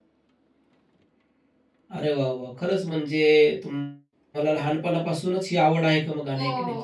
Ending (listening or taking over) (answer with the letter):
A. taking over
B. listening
A